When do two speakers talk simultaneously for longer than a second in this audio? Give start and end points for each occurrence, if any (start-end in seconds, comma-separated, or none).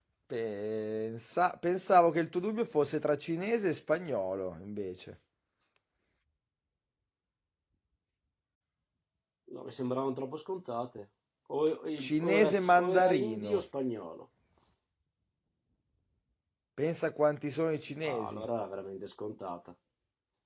12.0-13.6